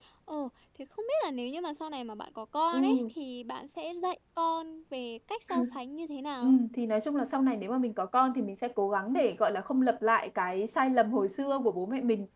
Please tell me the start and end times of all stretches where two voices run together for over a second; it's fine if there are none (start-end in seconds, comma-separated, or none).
none